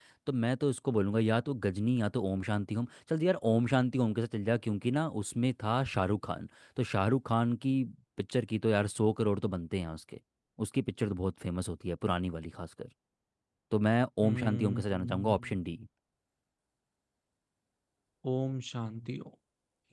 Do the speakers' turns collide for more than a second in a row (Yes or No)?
Yes